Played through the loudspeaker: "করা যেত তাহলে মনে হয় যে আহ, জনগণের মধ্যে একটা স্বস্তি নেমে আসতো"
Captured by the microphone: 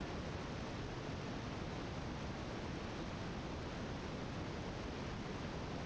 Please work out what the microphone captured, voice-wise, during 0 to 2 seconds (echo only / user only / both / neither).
neither